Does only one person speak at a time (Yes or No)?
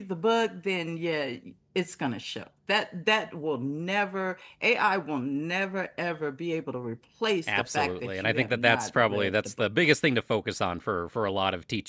No